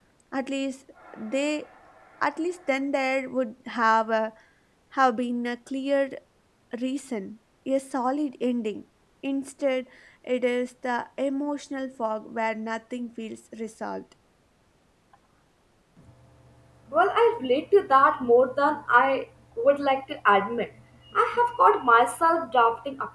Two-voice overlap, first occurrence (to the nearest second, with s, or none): none